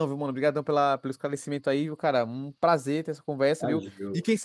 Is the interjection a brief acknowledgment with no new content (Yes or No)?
Yes